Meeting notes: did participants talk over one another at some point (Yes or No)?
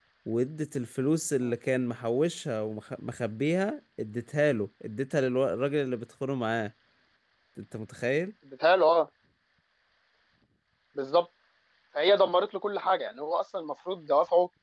No